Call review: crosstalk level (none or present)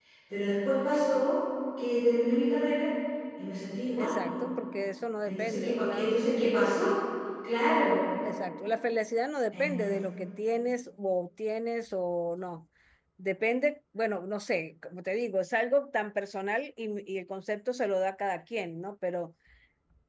present